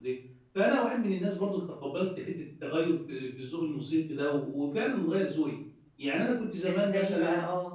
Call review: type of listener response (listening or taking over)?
taking over